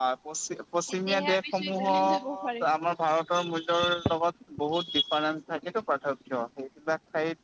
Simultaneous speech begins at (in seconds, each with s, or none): 1.1 s